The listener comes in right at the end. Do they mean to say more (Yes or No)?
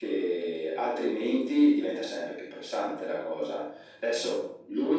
Yes